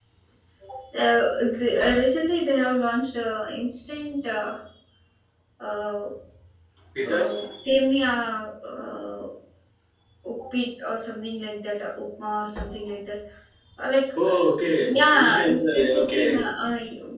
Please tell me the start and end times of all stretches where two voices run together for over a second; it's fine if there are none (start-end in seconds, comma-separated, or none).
14.8-16.4